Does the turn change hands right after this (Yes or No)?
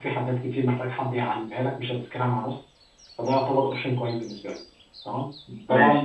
No